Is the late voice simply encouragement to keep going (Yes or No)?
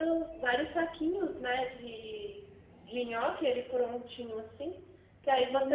Yes